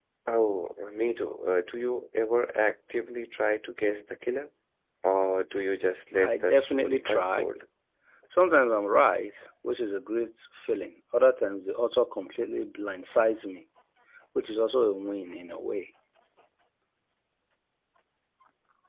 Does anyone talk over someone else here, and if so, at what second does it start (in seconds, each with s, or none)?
6.2 s